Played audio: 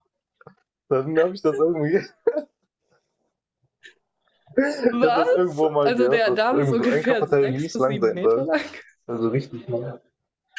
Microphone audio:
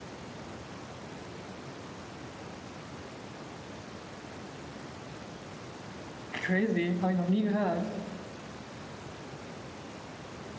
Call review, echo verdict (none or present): none